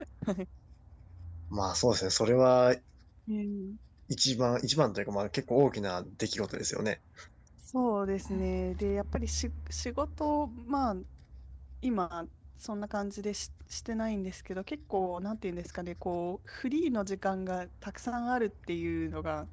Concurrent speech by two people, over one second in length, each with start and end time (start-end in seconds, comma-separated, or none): none